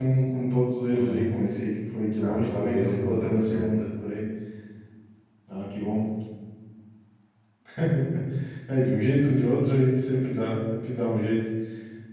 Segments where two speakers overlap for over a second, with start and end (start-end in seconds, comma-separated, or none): 2.2-3.7